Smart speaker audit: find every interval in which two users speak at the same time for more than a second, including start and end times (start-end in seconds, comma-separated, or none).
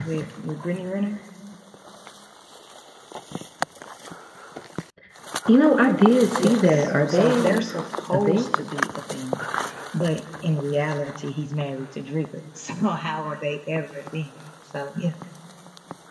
6.4-7.6